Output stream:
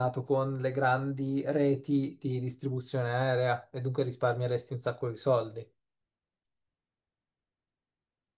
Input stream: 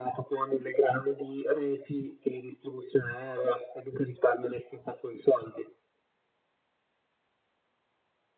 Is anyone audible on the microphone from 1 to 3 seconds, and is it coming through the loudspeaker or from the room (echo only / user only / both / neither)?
echo only